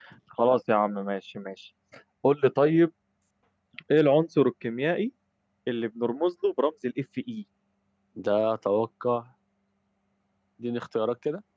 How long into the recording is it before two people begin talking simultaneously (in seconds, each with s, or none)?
none